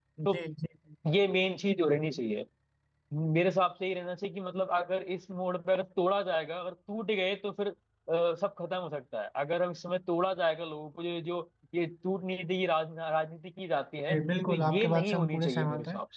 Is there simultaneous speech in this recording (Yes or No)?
Yes